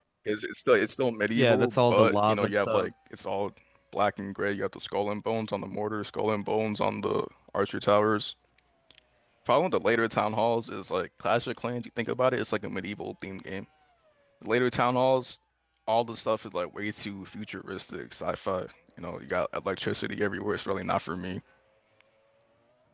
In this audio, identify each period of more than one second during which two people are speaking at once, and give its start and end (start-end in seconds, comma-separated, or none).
1.4-2.9